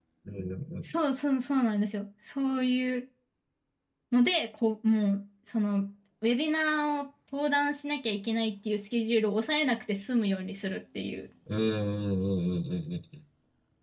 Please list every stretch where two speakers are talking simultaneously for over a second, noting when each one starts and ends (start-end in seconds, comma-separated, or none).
none